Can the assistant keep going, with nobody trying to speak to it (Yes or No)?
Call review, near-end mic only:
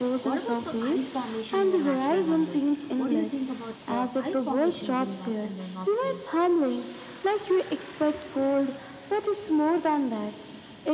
No